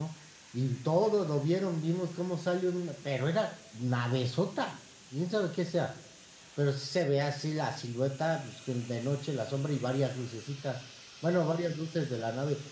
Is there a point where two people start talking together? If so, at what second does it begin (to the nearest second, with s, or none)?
none